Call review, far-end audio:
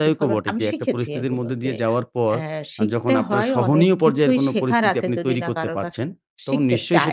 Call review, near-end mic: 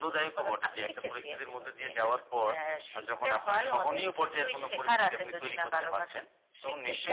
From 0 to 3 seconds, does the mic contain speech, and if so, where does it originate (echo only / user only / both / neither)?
echo only